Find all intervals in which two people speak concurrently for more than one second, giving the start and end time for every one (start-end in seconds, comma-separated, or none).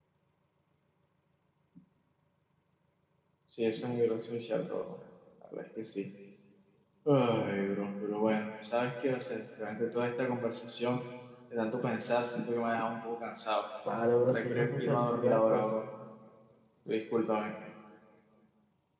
14.3-15.7